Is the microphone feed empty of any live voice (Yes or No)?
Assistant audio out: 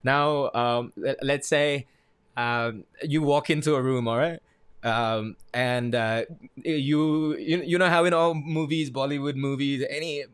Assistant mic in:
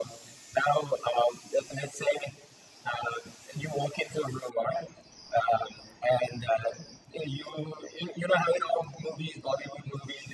Yes